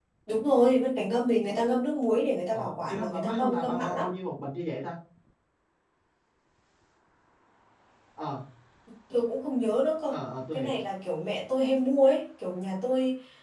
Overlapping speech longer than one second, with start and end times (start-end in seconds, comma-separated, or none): 2.5-4.0